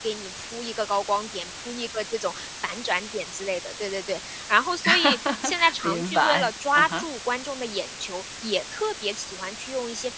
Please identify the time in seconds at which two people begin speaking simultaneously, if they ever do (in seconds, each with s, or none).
4.8 s